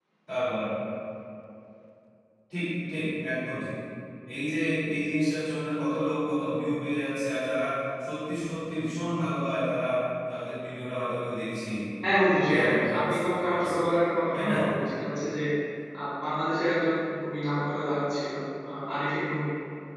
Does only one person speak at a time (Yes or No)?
No